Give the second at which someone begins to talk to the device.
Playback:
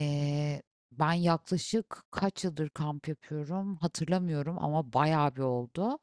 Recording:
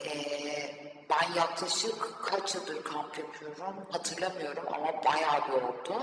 none

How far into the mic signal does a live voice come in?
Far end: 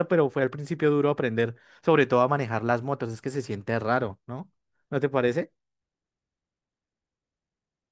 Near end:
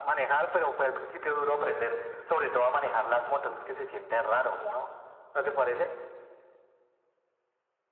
3.6 s

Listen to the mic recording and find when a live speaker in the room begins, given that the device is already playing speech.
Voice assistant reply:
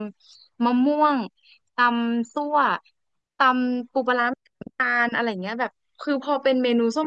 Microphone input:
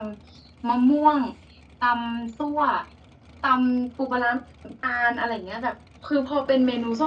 none

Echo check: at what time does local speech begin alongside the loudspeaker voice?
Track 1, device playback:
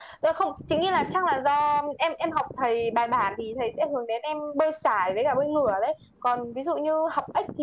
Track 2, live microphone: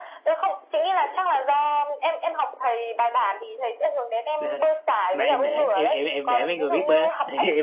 4.4 s

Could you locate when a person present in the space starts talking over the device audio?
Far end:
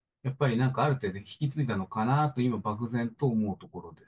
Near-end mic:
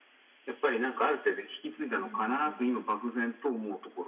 1.8 s

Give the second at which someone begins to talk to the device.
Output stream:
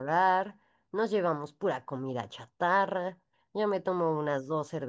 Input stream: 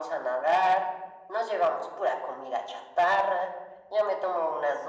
none

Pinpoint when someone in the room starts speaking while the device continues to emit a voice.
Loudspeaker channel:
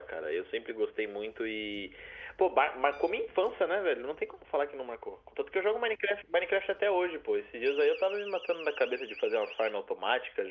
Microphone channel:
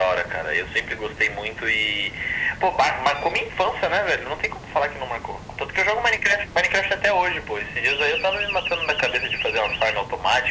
none

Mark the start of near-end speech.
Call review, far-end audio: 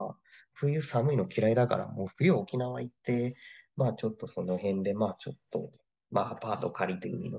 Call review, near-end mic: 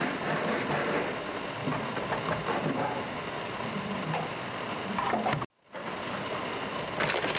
none

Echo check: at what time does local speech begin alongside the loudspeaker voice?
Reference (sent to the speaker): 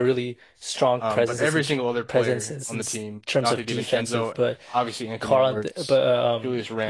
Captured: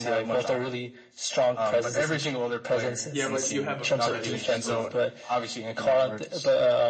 3.1 s

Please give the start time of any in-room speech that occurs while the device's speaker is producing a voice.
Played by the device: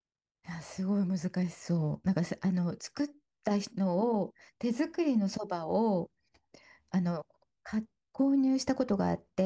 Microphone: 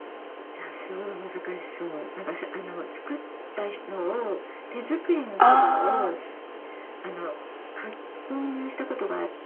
5.4 s

